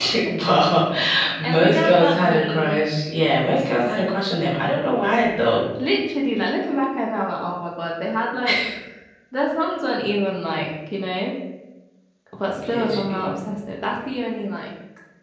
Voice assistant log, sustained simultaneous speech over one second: present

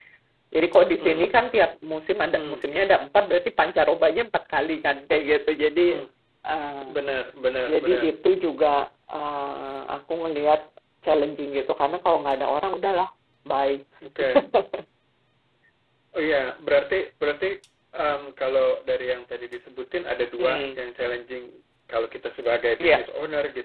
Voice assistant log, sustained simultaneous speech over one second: none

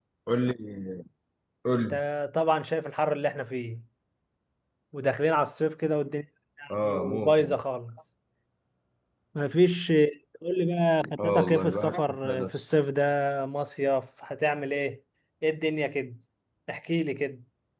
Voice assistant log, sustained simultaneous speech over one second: present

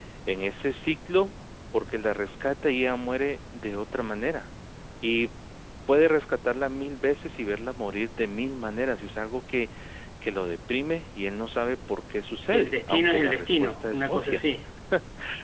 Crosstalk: present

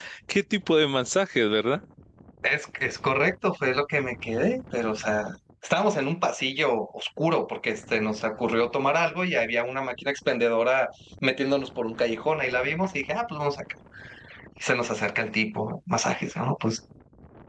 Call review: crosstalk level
none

